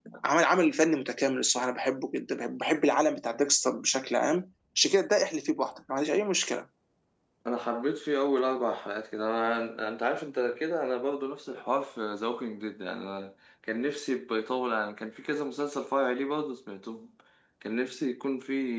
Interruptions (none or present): none